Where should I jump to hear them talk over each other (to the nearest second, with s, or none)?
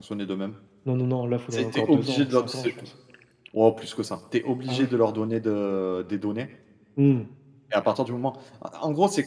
2 s